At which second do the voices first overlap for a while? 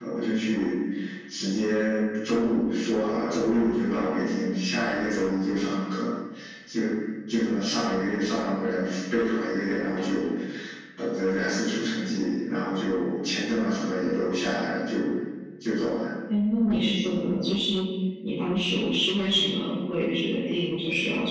none

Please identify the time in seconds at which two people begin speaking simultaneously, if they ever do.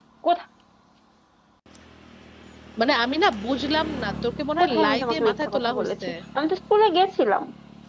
4.6 s

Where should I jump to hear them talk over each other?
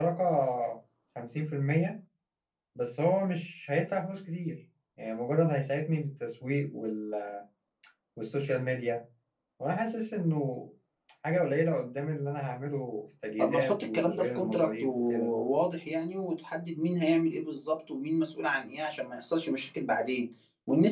13.4 s

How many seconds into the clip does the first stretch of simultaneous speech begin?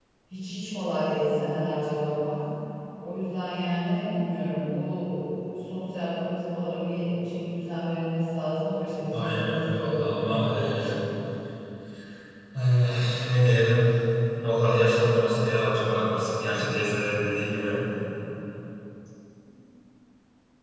9.1 s

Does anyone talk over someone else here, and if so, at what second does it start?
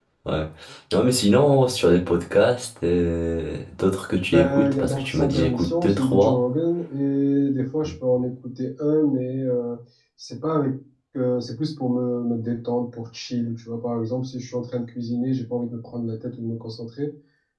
4.3 s

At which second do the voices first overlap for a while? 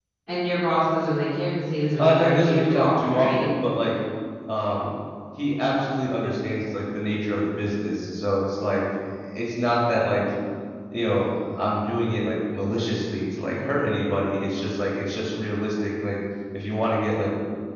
2.0 s

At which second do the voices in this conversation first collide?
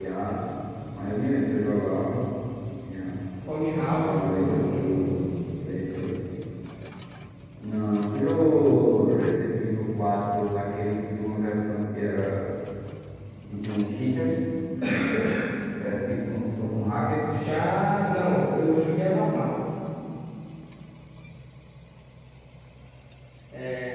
3.7 s

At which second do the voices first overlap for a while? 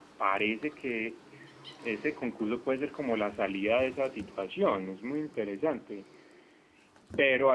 none

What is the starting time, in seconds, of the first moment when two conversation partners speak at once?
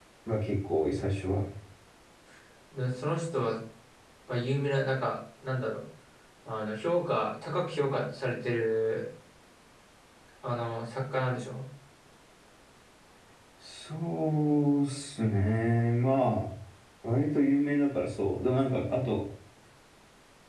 none

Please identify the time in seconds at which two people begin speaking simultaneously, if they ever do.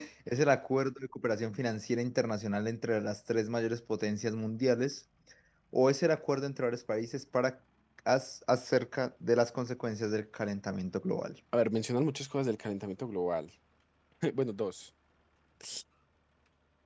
none

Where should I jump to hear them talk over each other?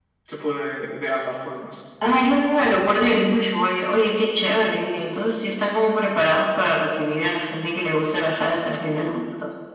none

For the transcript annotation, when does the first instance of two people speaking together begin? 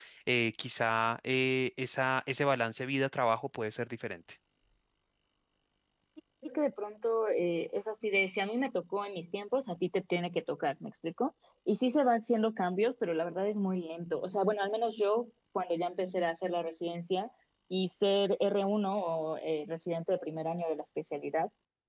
none

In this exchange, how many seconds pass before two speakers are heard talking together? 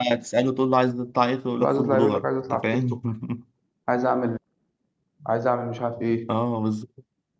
1.6 s

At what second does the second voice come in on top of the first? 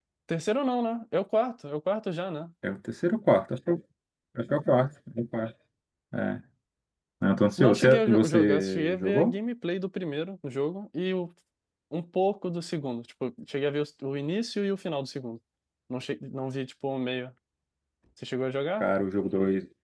7.6 s

